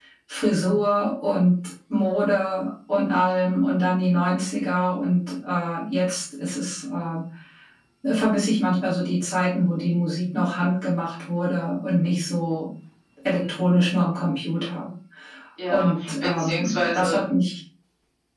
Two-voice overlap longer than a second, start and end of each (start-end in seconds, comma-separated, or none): 15.7-17.2